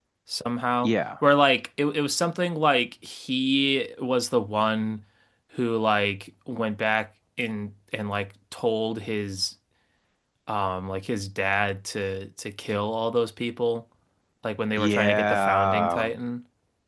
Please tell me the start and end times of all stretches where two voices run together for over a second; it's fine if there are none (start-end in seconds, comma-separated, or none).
14.8-16.1